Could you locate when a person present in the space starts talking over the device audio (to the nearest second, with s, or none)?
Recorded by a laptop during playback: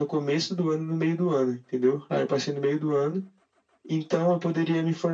none